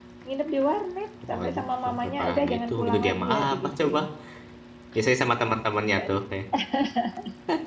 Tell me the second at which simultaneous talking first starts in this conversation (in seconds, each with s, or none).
1.2 s